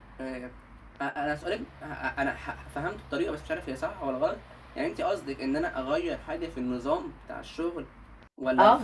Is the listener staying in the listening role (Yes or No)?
No